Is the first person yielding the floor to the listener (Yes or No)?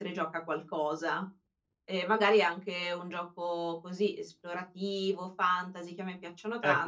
Yes